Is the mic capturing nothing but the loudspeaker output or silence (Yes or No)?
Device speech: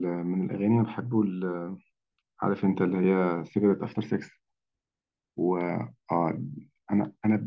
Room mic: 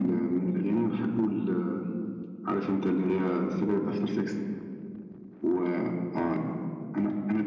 Yes